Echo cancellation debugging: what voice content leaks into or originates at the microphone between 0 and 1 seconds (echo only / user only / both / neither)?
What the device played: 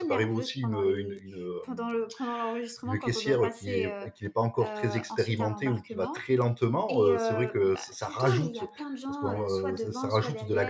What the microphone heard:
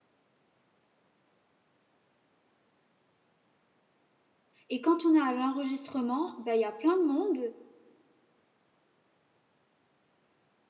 neither